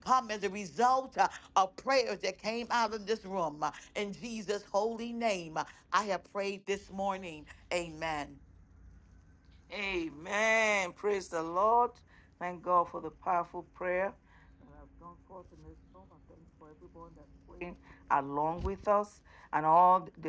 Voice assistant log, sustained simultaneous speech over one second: none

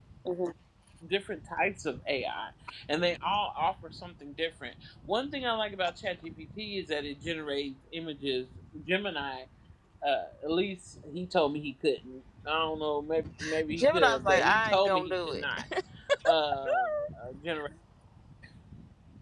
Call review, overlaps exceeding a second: present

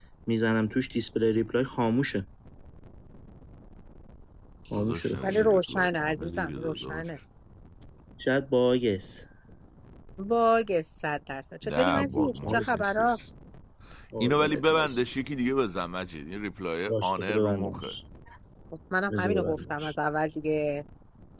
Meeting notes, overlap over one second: present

